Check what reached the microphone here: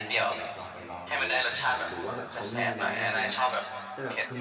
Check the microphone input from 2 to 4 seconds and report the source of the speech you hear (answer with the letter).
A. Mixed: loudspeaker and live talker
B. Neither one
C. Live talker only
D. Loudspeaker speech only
A